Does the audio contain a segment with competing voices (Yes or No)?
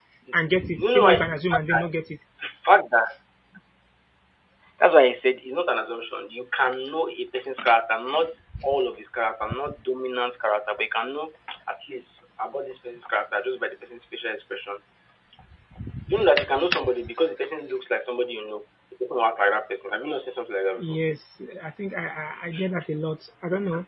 Yes